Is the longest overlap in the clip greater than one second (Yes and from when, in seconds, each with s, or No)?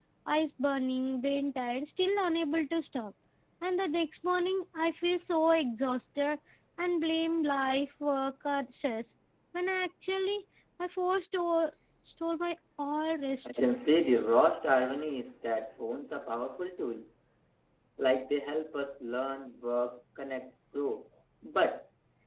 No